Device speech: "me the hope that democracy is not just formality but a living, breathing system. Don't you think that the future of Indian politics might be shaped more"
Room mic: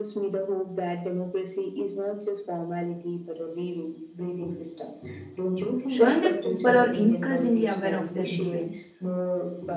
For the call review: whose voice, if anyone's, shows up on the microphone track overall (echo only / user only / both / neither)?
both